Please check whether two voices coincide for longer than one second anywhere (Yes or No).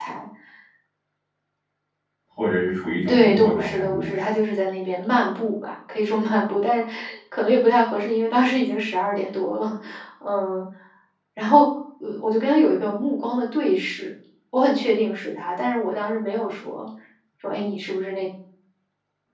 Yes